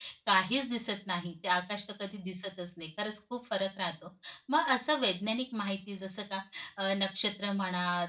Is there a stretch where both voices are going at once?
No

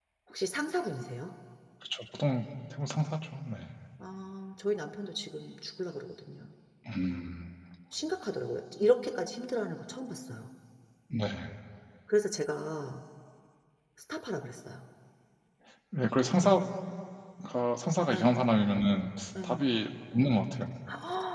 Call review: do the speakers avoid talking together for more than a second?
Yes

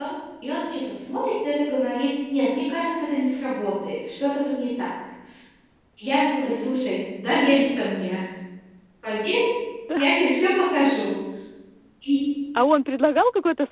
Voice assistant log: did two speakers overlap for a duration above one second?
No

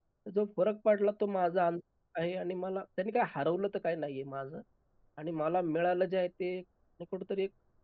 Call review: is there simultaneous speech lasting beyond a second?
No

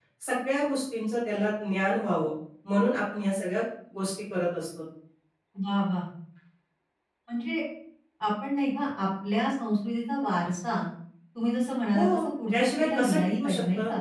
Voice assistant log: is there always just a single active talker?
No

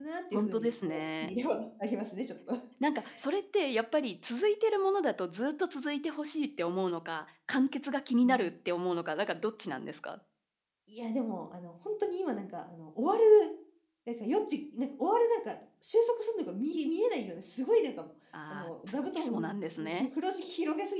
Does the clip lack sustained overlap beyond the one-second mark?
No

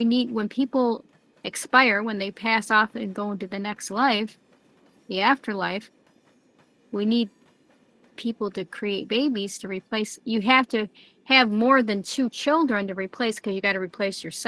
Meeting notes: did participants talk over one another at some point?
No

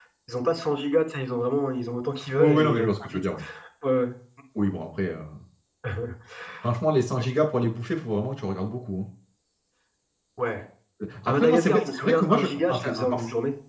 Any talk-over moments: Yes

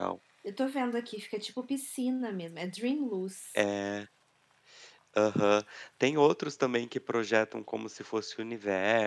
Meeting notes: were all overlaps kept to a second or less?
Yes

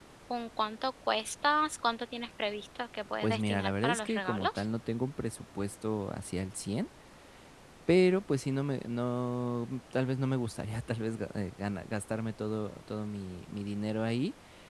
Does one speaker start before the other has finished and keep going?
Yes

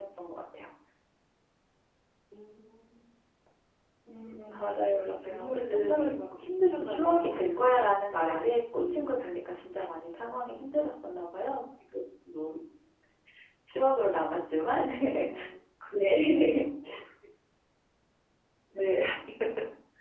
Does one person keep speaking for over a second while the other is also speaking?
Yes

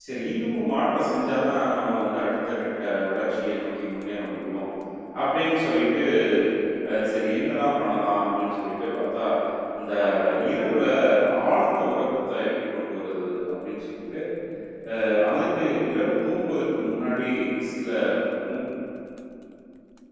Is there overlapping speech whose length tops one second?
No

